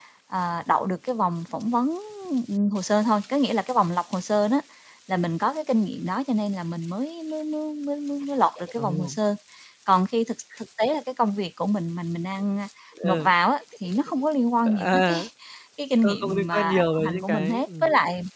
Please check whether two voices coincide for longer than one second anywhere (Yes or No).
Yes